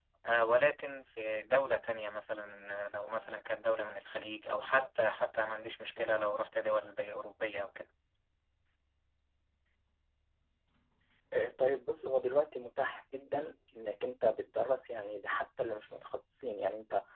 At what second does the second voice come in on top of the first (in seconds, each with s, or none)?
none